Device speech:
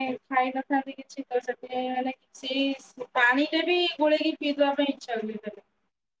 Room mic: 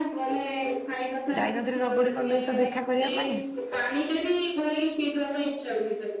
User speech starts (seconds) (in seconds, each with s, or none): 1.4 s